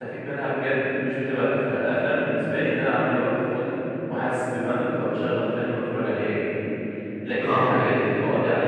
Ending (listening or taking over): listening